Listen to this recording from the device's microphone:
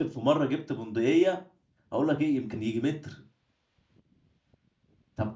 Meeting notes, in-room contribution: present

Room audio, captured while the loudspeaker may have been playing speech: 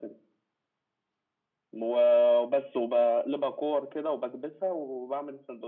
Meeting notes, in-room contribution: none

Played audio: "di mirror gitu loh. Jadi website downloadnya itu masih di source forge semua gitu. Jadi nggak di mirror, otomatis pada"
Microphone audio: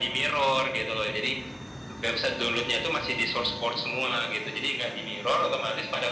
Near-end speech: none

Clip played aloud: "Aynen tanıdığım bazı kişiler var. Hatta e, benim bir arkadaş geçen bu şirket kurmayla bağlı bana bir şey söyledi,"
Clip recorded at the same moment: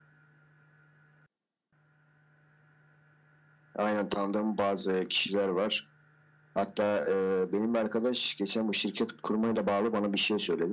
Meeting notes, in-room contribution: none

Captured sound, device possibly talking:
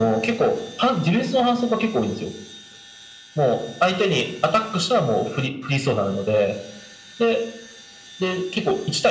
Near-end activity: none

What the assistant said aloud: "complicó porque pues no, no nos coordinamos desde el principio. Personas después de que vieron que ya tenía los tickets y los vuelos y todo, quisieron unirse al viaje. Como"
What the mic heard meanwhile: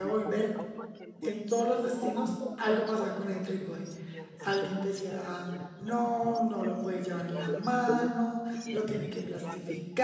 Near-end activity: present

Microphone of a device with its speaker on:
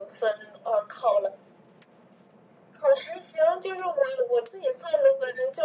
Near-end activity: none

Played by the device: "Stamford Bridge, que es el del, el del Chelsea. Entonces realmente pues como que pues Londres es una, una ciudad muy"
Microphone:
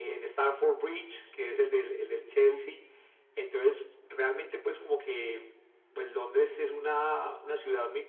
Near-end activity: none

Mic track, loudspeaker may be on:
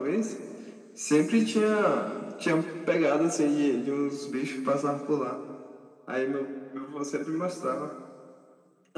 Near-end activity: none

